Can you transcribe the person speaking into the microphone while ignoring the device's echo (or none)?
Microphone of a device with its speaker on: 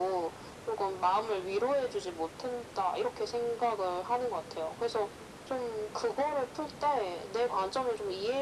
none